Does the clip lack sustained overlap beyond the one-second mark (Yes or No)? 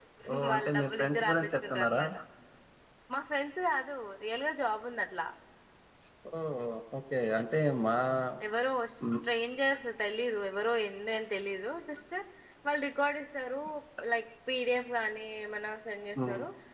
No